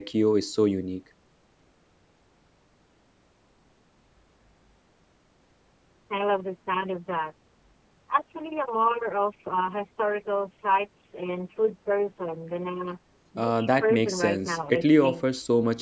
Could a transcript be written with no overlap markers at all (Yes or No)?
No